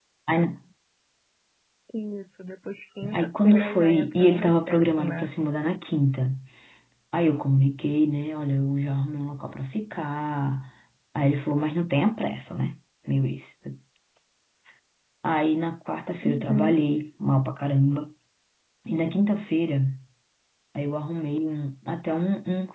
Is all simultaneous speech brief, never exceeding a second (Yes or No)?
No